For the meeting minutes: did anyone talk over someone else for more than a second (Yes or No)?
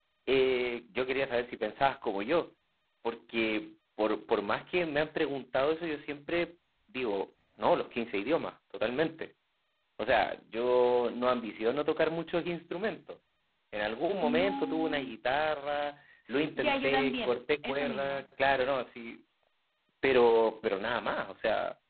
Yes